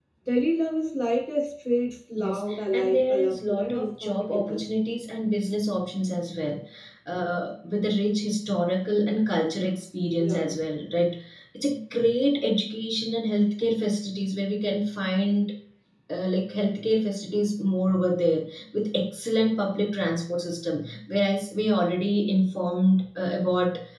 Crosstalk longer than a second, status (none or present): present